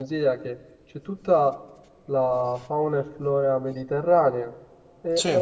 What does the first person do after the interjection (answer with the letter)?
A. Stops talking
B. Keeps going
B